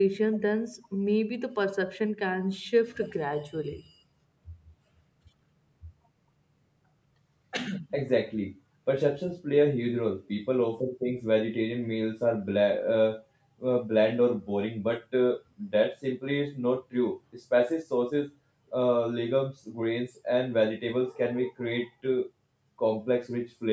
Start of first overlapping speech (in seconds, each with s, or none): none